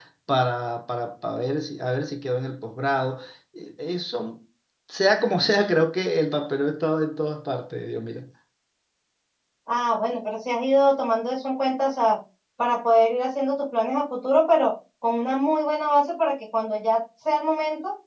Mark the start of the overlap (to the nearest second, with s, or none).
none